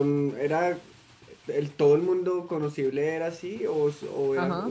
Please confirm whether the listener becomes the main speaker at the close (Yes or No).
Yes